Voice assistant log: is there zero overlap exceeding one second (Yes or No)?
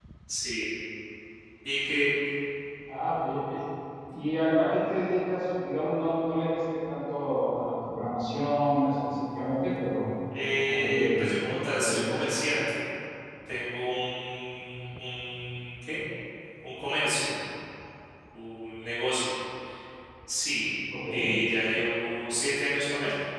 No